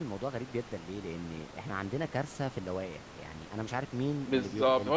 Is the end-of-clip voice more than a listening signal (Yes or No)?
Yes